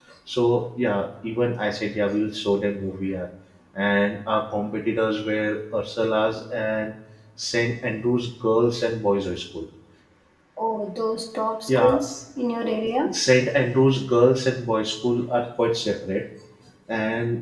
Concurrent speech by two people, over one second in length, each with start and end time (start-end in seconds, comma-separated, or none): none